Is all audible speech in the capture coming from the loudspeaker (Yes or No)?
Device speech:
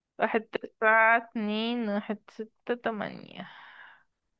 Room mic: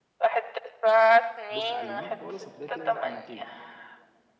No